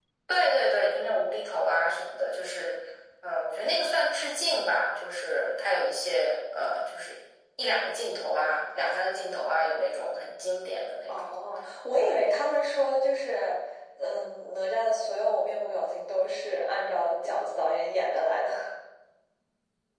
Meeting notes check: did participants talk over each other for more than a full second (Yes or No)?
No